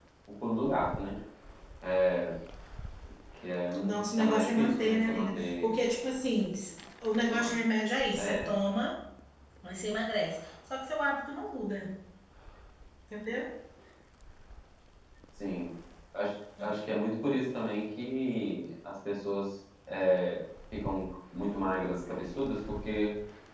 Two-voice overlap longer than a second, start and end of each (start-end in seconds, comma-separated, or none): 4.1-5.7